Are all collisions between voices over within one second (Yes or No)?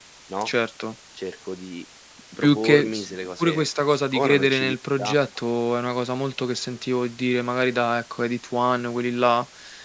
No